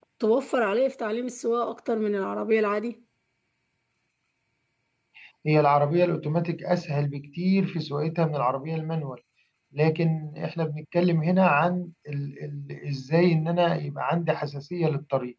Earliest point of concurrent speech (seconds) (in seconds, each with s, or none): none